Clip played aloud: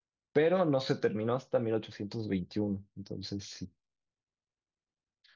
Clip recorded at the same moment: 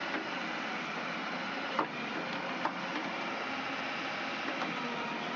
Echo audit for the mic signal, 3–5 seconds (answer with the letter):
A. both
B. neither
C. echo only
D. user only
B